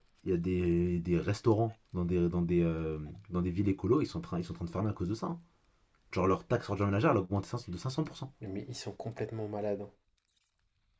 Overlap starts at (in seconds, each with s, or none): none